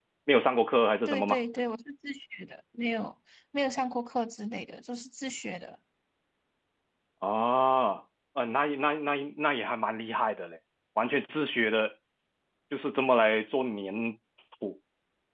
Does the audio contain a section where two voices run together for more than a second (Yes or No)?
No